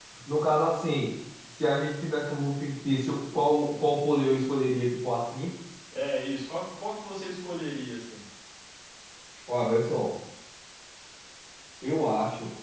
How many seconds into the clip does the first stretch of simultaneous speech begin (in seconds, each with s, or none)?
none